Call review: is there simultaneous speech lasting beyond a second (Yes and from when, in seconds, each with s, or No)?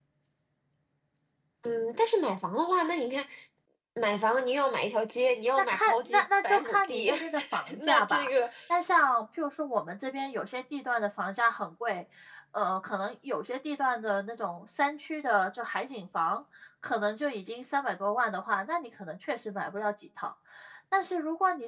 Yes, from 5.6 s